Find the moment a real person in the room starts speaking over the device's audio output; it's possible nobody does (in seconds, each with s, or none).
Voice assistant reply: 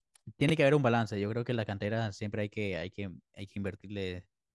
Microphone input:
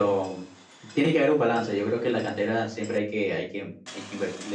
none